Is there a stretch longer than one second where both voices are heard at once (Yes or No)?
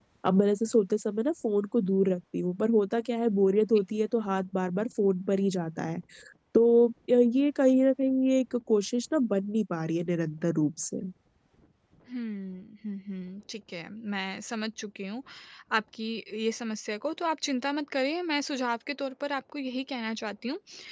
No